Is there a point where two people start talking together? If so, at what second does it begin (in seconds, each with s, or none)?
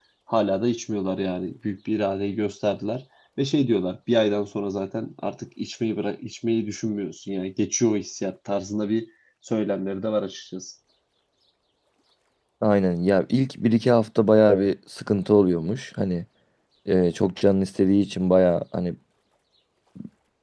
none